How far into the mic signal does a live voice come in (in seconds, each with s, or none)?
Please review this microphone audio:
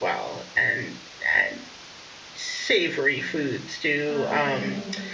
4.0 s